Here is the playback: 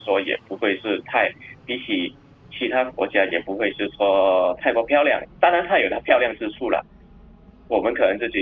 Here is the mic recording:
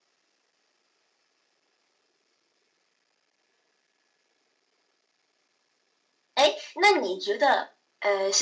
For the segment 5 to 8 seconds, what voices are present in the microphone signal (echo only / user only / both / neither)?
user only